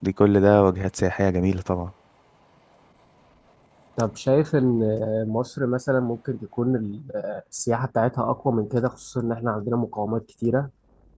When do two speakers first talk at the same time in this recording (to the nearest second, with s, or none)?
none